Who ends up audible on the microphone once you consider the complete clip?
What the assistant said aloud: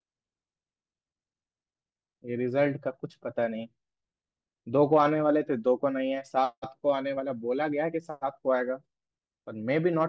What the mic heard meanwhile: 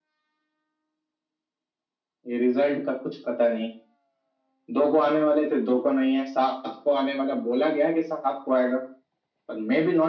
echo only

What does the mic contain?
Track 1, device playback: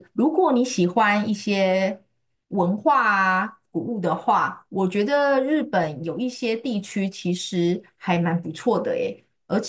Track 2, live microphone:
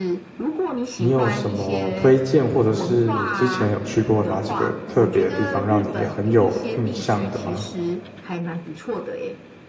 both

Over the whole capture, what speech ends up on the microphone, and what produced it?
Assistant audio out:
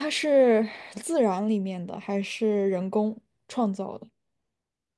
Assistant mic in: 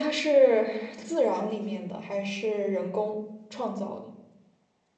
echo only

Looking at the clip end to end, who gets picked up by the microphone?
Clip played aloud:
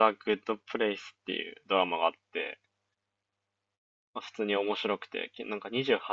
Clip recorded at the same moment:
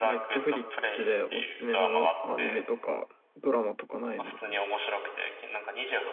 both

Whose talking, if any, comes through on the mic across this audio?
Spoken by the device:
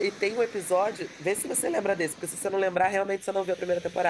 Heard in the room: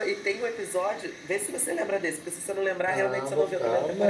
both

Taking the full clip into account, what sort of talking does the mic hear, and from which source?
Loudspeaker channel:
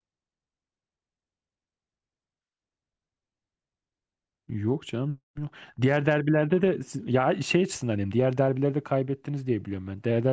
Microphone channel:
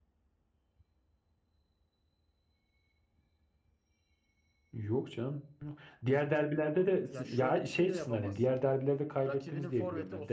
both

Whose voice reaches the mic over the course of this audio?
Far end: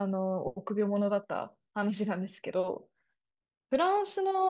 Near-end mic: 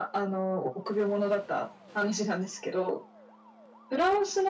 echo only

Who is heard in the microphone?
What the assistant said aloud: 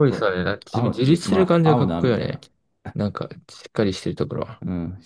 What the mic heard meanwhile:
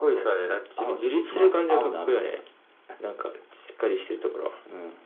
echo only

